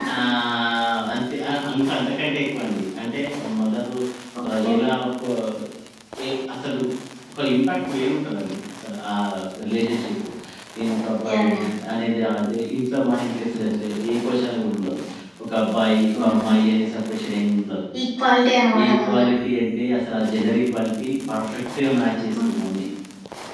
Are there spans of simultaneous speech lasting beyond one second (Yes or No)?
No